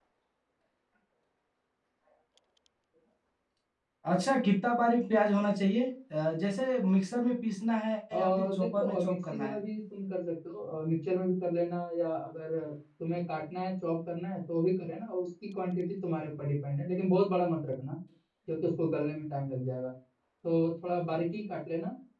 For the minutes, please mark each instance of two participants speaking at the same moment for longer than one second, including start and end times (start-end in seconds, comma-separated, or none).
8.2-9.6